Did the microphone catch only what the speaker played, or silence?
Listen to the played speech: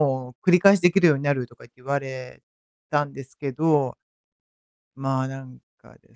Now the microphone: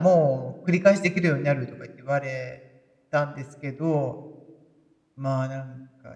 Yes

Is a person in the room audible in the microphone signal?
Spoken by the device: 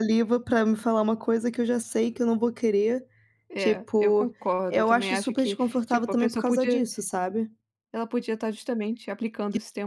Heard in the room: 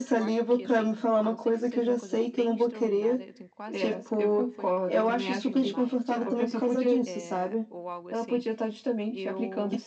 Yes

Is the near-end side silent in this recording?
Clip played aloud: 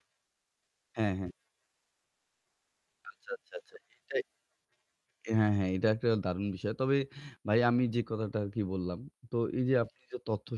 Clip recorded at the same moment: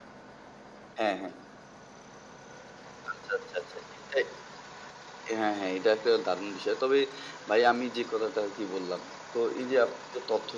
Yes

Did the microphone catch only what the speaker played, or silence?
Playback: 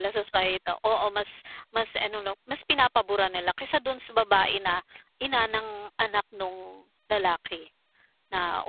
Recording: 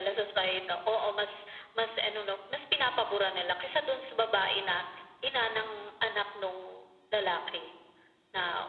Yes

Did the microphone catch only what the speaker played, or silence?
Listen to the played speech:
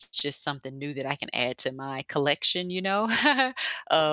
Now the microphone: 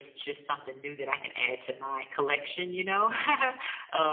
Yes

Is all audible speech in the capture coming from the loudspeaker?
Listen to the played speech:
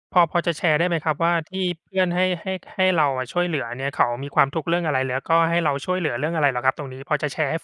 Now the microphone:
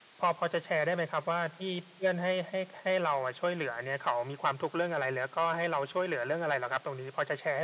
Yes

